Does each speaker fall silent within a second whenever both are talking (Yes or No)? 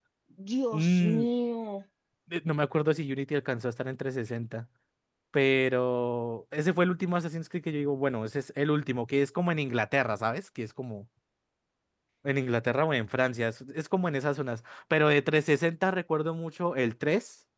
Yes